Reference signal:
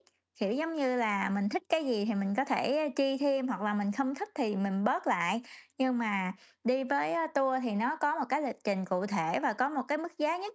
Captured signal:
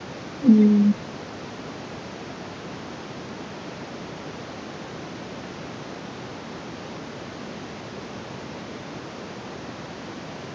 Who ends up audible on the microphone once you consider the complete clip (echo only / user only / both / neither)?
user only